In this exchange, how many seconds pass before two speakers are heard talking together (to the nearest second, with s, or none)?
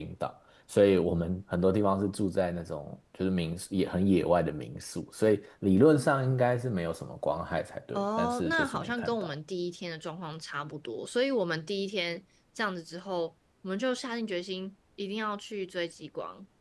8 s